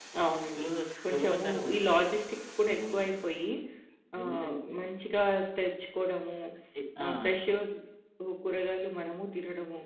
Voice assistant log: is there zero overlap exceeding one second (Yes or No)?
No